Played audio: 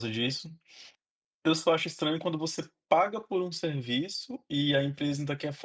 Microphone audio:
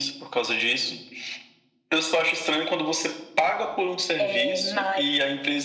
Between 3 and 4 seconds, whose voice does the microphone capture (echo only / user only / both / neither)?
echo only